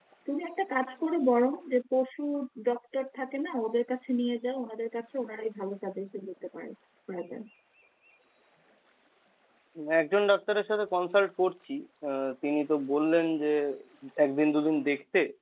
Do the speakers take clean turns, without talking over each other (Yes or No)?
Yes